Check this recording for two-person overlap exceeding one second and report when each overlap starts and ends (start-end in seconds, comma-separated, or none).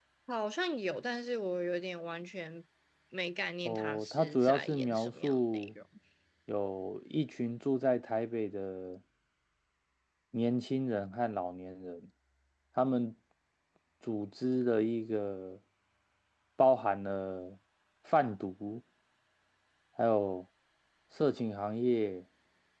3.6-5.7